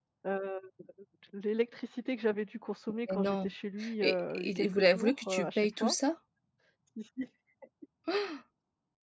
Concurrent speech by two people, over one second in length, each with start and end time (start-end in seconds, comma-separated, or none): 4.0-6.0